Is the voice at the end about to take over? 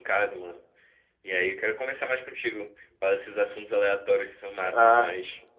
Yes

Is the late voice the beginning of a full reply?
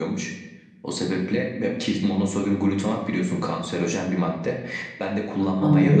No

